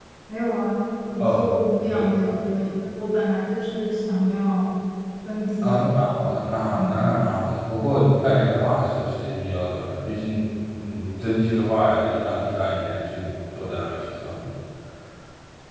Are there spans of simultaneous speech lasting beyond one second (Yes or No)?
No